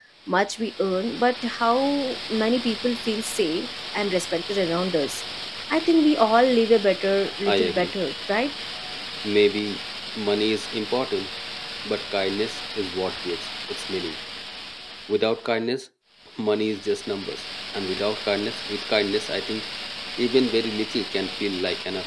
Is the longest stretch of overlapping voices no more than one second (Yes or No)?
Yes